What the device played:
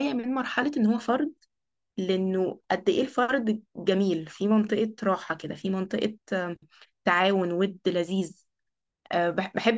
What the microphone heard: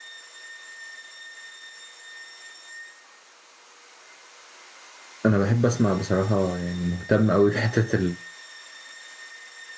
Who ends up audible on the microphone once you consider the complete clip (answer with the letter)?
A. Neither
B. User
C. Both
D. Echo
B